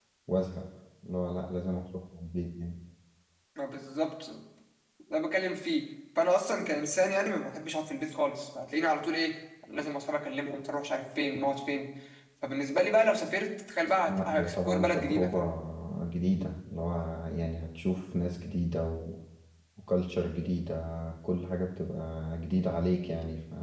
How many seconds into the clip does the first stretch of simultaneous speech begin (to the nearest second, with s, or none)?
14 s